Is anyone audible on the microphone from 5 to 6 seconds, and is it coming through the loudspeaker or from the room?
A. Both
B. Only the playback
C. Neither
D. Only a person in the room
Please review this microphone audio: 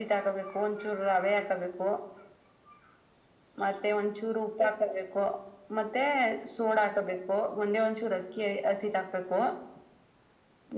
B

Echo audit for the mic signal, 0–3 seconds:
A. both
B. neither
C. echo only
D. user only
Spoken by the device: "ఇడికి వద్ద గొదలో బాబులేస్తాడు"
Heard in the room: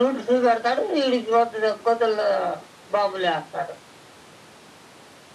C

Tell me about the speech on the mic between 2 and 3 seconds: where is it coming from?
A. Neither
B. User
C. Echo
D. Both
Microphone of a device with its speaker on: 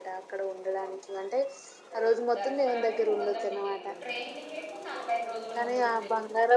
D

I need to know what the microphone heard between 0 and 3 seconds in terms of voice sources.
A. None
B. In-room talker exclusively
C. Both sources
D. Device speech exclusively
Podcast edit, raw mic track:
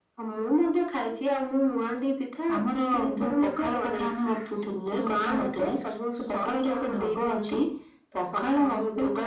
D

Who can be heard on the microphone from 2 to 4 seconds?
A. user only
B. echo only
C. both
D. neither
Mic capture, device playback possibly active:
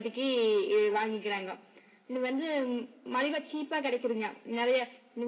B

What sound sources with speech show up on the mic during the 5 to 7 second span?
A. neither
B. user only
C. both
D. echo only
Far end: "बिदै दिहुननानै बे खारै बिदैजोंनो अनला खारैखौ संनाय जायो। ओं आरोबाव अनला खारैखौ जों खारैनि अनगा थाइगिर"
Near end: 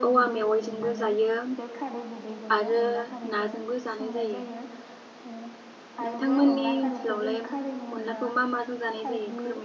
C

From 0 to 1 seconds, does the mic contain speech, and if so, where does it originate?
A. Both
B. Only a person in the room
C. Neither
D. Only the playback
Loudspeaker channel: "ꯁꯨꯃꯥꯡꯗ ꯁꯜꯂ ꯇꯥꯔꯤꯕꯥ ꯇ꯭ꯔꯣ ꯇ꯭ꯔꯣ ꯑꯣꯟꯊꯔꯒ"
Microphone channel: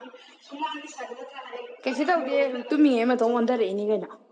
D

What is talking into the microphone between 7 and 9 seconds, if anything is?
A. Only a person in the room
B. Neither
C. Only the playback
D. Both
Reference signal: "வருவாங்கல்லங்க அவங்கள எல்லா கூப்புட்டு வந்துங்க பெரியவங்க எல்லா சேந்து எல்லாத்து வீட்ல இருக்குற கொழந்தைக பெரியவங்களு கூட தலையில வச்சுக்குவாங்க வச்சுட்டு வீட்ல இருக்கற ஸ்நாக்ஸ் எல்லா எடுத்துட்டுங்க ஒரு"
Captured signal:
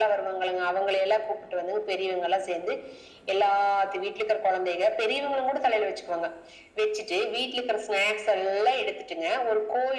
C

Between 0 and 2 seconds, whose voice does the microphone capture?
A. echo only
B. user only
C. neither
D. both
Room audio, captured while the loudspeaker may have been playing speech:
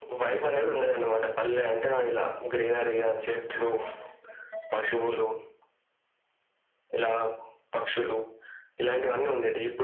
A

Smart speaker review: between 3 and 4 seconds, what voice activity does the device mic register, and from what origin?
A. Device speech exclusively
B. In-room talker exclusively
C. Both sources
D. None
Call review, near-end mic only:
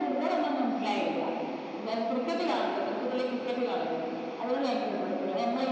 A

